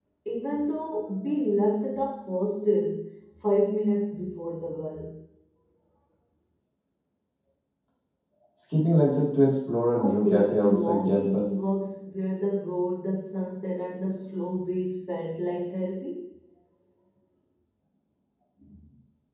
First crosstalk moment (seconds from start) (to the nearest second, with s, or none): 10 s